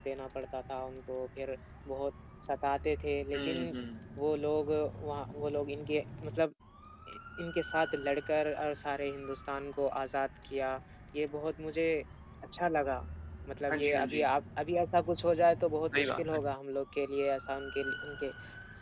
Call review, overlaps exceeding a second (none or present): none